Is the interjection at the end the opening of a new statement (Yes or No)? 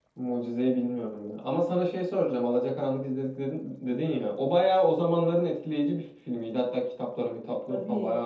No